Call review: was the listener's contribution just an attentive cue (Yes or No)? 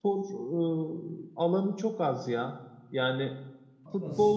Yes